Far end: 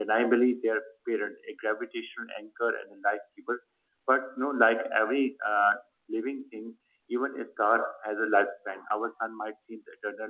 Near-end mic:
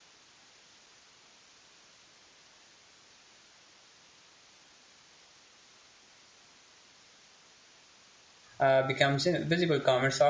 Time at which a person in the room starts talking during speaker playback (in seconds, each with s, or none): 8.6 s